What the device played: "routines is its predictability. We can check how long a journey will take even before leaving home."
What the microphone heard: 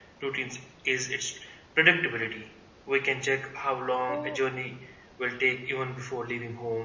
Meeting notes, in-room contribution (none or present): present